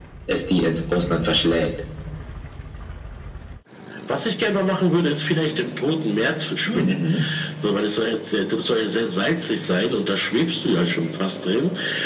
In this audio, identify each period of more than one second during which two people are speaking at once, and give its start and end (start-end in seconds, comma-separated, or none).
none